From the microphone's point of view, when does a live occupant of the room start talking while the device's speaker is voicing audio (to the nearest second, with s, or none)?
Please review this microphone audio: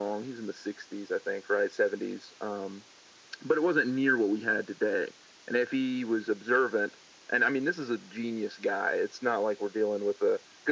none